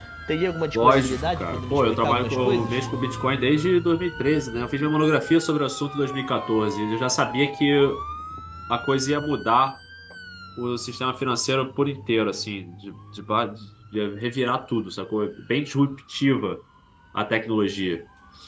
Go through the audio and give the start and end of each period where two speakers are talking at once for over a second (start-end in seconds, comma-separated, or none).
0.7-2.8